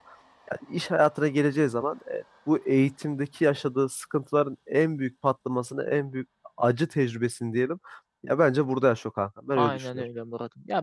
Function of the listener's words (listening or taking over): taking over